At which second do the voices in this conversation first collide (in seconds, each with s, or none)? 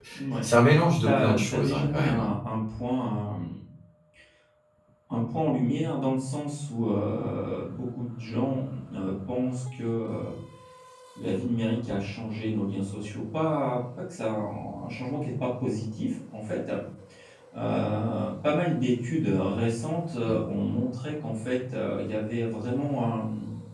1.0 s